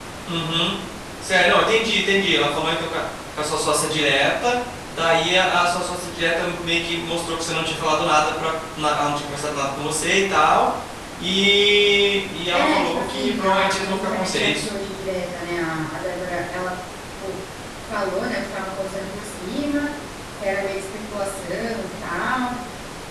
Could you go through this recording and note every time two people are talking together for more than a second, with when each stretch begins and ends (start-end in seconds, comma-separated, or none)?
12.5-14.7